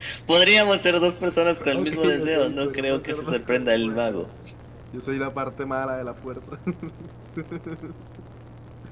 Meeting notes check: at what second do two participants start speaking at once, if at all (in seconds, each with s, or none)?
1.6 s